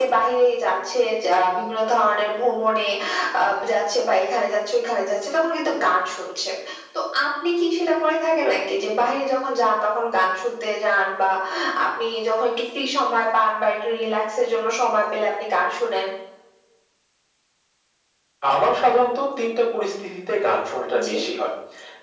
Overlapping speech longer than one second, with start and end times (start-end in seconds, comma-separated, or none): none